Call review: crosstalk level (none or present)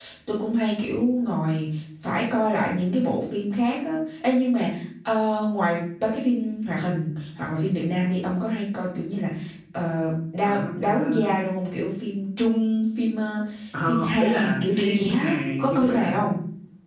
present